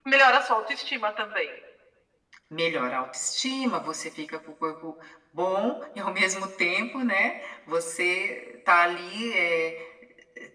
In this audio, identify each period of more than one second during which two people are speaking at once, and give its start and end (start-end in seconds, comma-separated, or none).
none